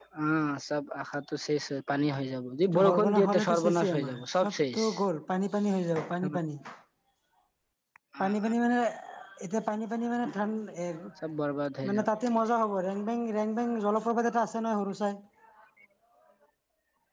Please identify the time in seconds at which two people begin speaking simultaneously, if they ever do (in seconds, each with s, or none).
2.7 s